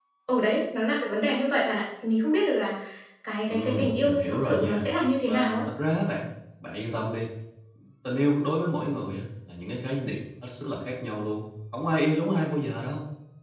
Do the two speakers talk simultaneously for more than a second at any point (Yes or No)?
Yes